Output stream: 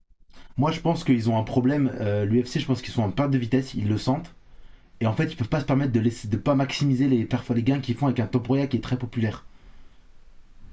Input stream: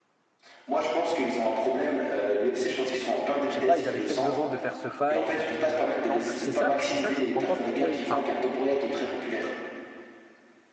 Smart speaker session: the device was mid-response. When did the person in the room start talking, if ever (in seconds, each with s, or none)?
3.5 s